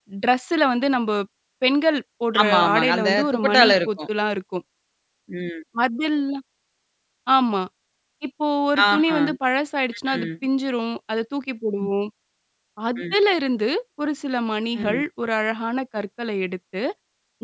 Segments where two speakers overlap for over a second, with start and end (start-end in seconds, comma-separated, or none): 2.4-3.9